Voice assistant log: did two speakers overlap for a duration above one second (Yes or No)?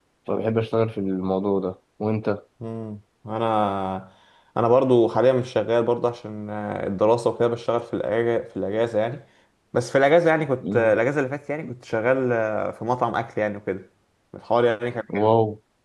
No